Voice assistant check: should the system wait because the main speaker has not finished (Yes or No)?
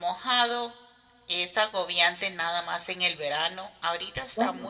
Yes